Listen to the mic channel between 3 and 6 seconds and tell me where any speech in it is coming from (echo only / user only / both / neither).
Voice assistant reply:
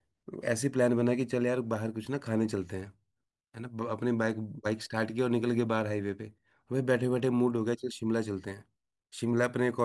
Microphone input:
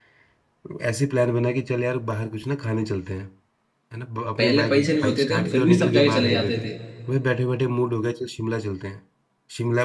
both